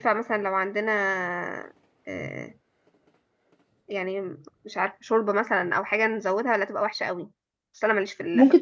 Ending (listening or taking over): taking over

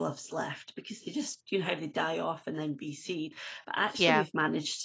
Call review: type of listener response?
listening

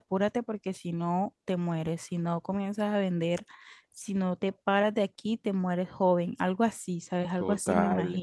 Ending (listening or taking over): taking over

